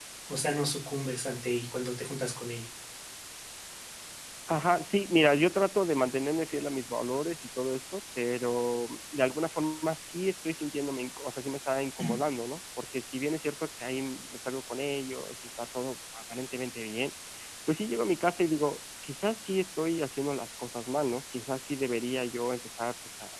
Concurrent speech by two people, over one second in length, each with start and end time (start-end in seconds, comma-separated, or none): none